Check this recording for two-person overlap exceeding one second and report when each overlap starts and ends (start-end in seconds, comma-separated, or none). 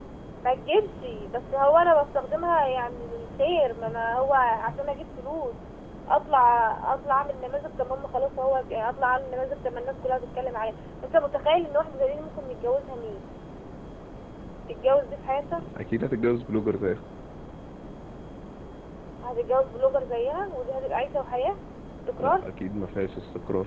none